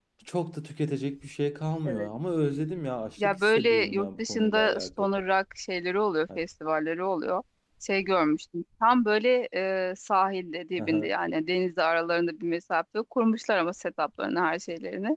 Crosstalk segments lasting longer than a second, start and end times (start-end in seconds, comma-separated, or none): 3.2-5.1